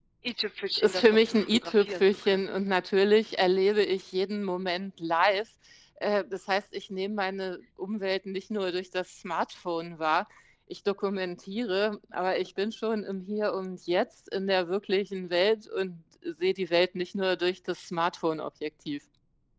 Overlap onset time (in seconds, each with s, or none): 0.7 s